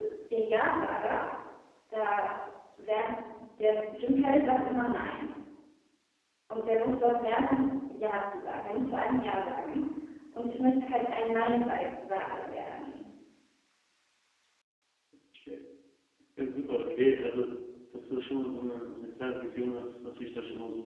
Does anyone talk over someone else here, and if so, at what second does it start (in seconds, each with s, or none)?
none